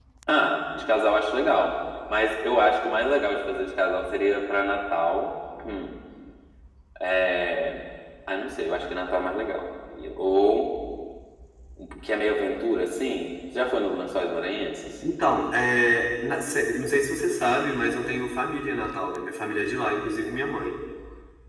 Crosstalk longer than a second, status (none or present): none